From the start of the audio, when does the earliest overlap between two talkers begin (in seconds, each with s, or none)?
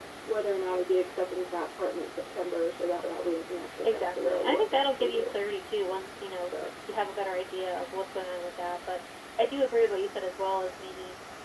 3.8 s